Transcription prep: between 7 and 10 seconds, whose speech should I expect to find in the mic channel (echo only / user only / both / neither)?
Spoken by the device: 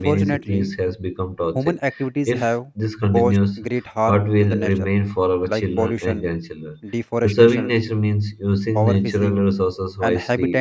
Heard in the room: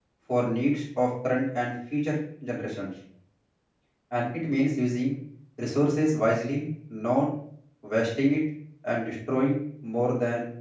user only